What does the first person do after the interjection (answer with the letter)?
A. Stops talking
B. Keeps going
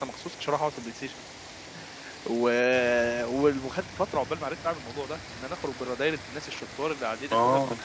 B